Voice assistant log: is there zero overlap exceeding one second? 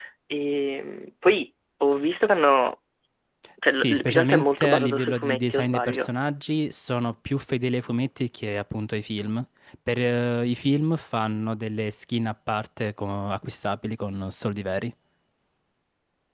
No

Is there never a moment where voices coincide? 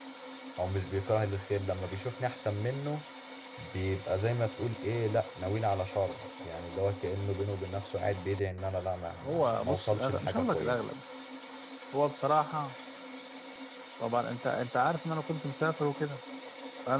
No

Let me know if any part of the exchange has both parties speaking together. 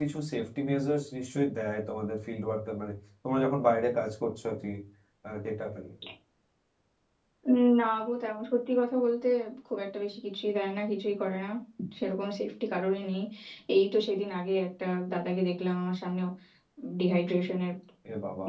No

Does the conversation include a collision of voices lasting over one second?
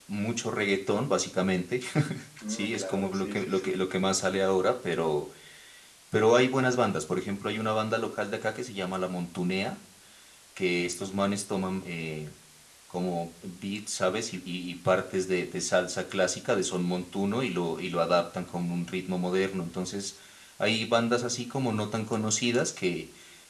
Yes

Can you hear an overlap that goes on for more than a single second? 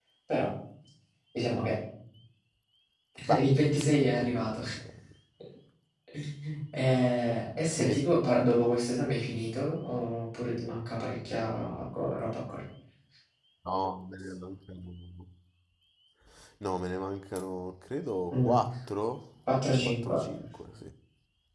Yes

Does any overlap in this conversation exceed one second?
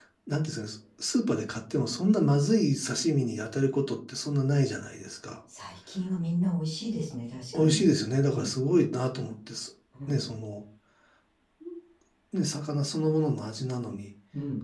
No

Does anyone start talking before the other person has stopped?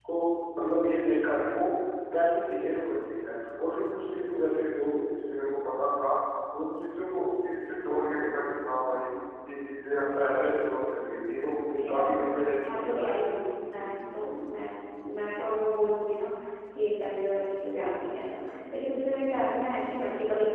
Yes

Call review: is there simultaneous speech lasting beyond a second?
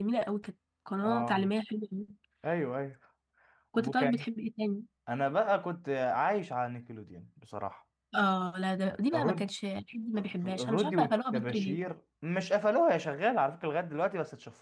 Yes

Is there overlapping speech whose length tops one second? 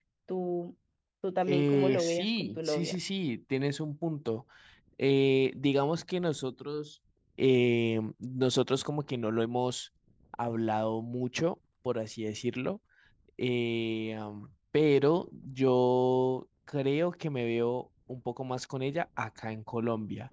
Yes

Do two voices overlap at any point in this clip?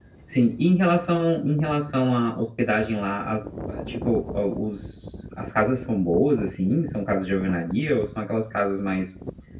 No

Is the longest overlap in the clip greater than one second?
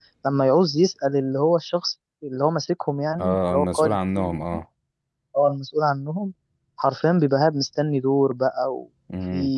Yes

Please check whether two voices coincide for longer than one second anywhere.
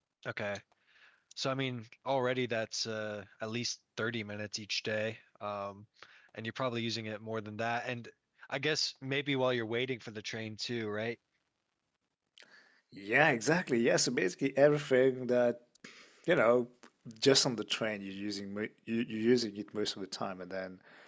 No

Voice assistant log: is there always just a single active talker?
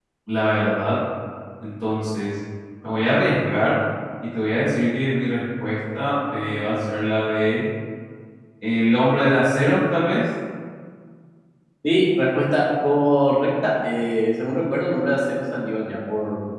Yes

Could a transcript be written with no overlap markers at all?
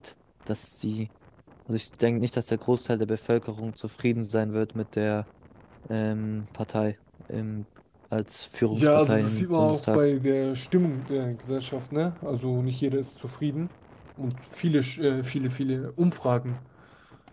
No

